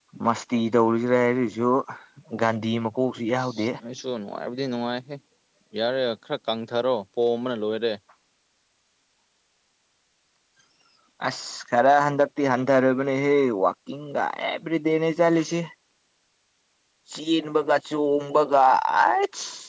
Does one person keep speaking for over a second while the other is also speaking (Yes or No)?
No